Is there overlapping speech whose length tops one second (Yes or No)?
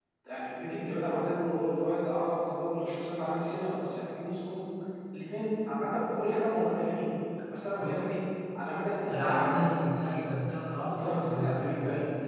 Yes